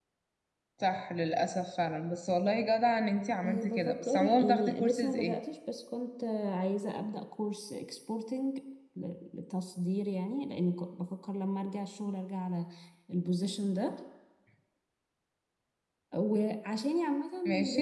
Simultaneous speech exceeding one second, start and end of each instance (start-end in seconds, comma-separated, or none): 3.4-5.3